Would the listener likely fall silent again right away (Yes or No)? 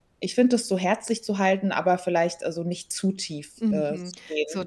No